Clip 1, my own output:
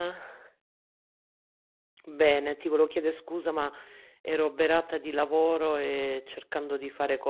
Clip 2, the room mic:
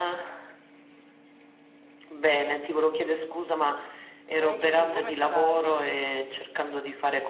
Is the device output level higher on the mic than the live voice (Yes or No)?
Yes